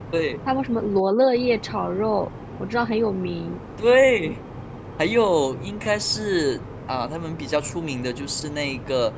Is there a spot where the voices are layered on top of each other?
No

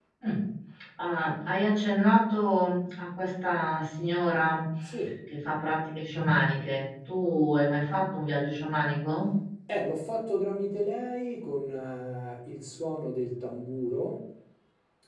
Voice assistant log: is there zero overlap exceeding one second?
Yes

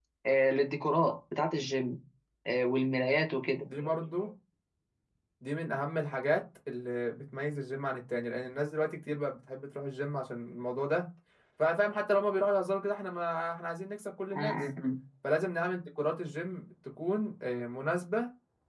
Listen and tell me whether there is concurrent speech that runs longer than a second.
No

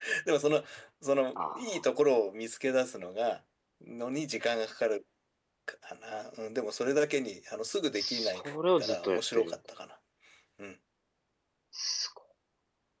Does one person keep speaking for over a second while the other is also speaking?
Yes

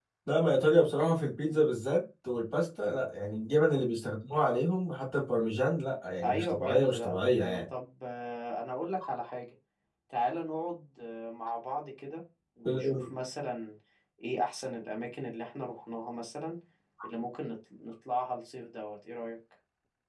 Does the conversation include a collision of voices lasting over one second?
Yes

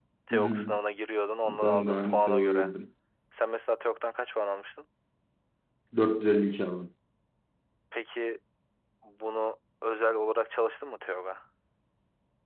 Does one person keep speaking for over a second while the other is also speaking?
Yes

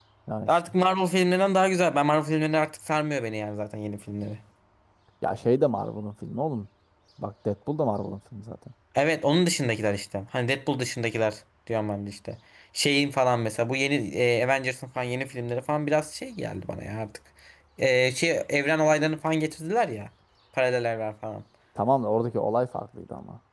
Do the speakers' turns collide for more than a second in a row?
No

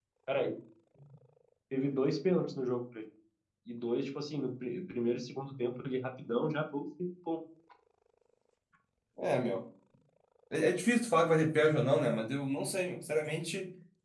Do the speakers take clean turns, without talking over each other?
Yes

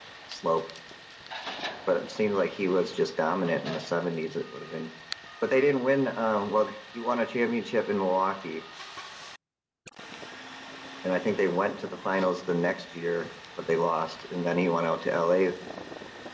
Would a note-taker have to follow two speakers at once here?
No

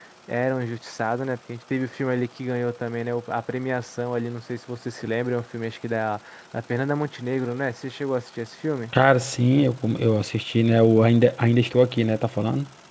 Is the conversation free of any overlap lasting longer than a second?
Yes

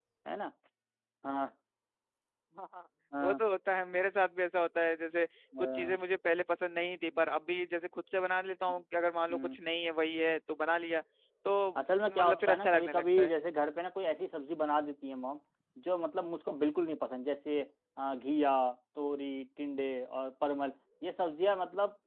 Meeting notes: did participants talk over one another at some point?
Yes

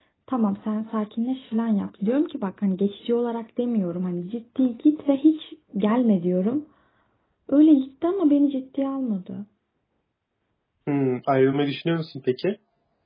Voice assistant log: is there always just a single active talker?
Yes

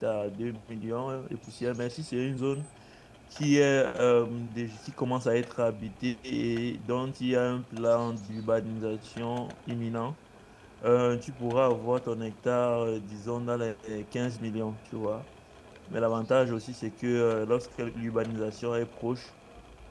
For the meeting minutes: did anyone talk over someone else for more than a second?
No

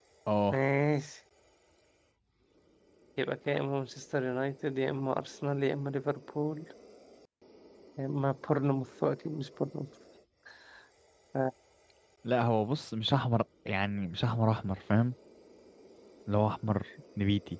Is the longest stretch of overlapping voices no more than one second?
Yes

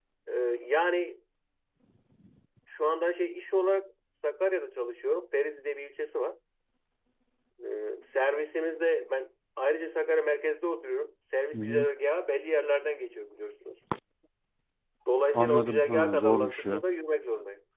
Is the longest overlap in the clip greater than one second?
Yes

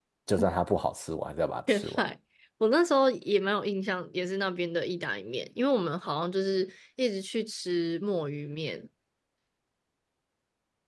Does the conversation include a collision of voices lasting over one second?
No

